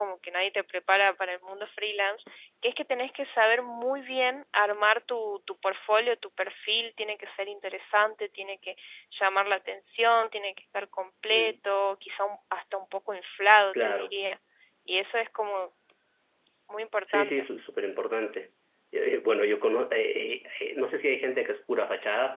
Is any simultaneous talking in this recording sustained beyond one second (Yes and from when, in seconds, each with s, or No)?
No